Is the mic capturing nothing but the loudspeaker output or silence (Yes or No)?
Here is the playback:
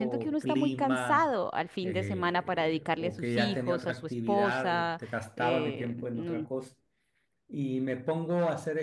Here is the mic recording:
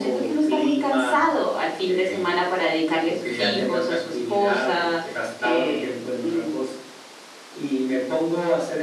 Yes